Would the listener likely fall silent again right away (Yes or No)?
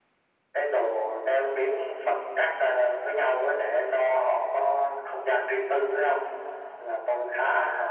Yes